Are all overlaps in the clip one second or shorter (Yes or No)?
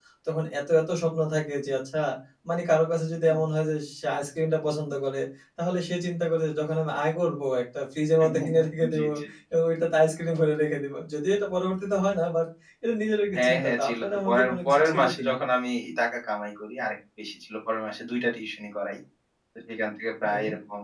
No